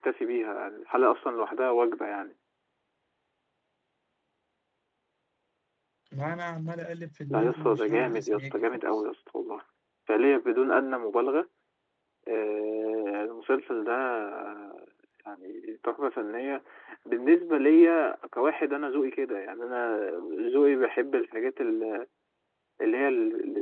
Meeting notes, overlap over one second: present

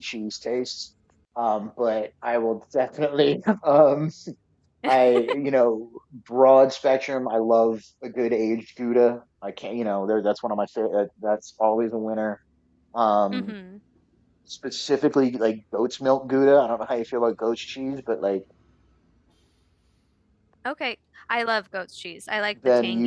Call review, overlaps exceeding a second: none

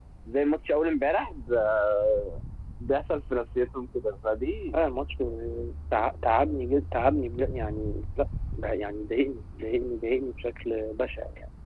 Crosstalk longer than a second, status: none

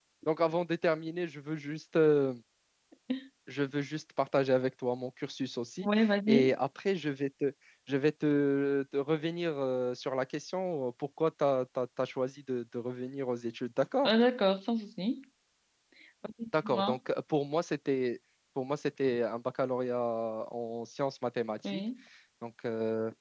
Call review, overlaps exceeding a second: none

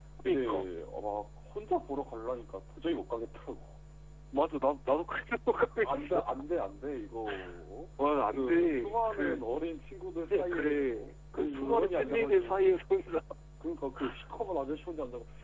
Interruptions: present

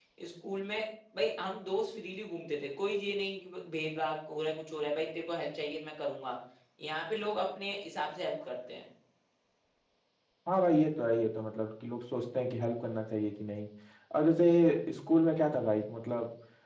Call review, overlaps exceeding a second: none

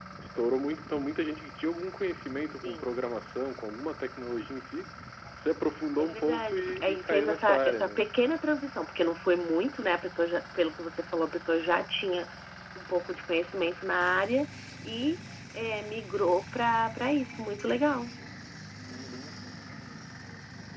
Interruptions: present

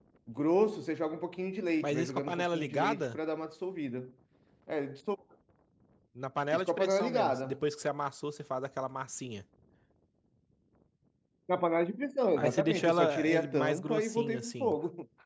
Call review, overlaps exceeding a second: present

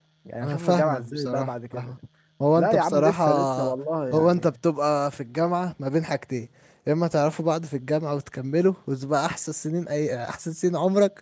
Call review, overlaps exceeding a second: present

